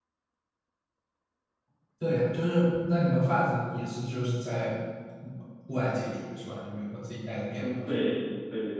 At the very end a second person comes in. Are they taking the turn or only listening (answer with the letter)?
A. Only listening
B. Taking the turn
B